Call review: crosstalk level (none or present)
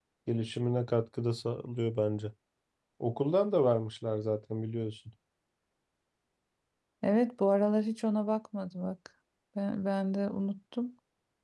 none